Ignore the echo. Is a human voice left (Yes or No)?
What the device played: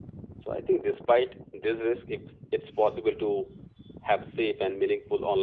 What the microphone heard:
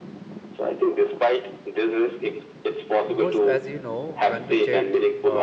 Yes